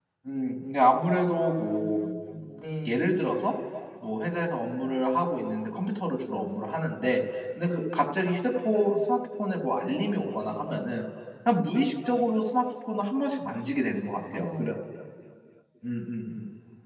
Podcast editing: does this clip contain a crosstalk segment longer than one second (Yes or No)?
No